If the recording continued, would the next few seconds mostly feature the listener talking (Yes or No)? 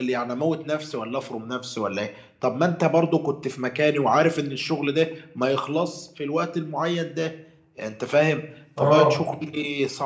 No